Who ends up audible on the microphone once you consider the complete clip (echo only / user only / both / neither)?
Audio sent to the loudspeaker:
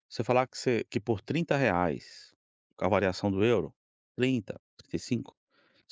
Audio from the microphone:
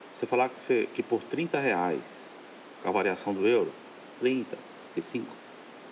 echo only